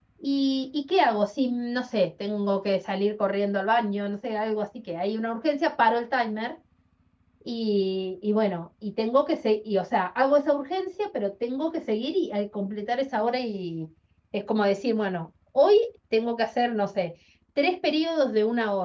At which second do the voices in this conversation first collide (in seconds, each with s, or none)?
none